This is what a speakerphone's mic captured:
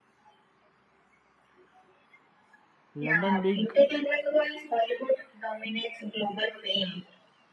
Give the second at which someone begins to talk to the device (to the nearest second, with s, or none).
3 s